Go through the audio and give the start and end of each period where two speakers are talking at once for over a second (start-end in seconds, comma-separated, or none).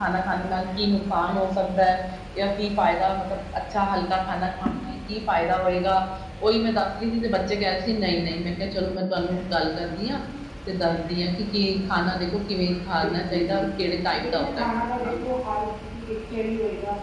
13.0-15.1